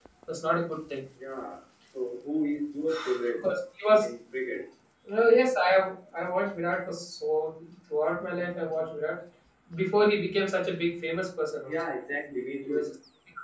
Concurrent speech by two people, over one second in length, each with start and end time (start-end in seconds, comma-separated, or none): none